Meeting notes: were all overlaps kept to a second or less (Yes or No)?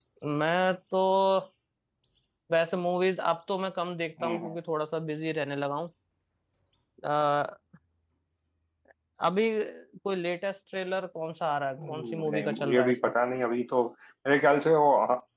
No